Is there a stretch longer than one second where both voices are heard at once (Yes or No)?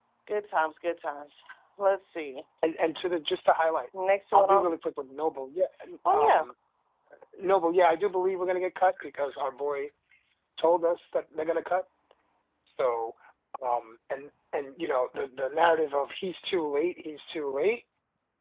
No